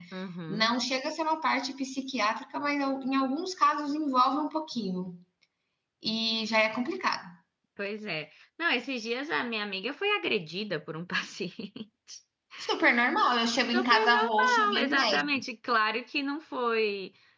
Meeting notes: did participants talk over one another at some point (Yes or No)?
Yes